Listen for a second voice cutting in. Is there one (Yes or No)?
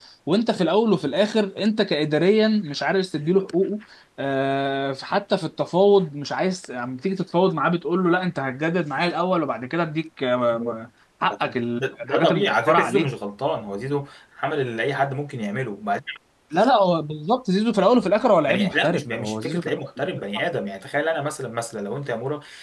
Yes